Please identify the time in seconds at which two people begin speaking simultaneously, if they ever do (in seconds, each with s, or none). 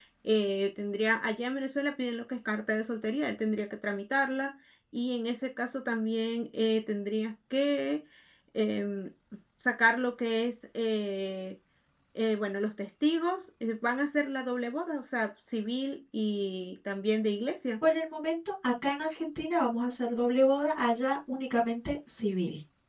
none